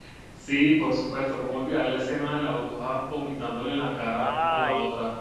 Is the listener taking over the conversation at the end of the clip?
Yes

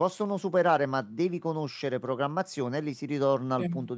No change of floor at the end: Yes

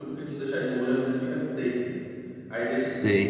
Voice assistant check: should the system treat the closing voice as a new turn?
Yes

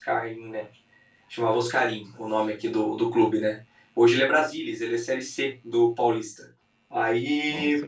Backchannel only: Yes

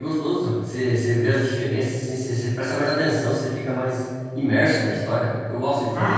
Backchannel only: No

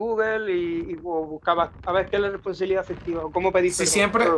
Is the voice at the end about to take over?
Yes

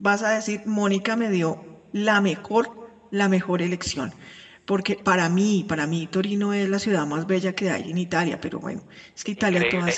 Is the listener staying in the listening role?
No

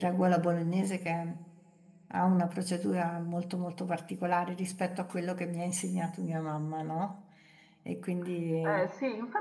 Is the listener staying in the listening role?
No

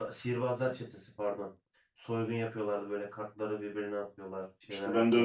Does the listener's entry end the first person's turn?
Yes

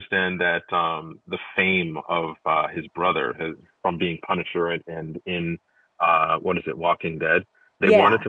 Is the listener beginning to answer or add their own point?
No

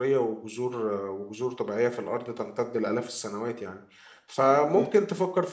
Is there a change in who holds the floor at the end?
No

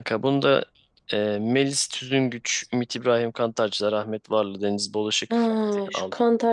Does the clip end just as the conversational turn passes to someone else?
Yes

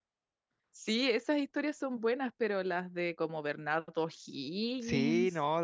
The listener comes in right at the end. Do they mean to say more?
Yes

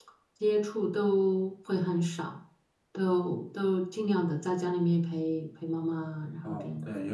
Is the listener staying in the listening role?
No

